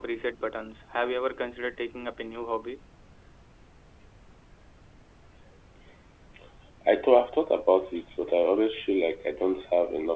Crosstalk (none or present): none